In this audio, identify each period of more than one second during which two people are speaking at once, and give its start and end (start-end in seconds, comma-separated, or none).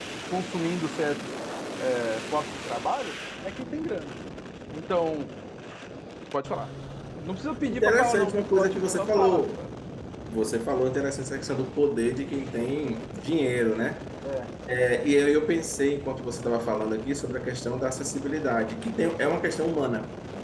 7.7-9.5